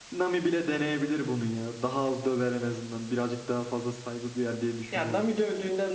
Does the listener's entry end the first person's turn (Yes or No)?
Yes